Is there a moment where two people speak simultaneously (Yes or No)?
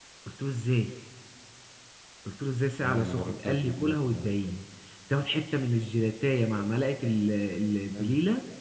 Yes